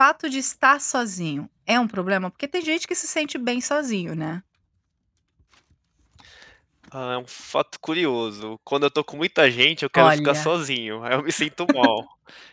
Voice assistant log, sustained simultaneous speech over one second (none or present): none